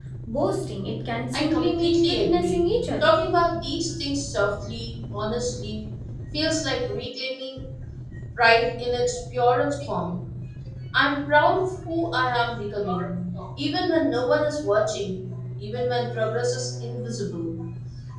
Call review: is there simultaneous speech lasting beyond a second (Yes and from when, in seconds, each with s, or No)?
Yes, from 1.3 s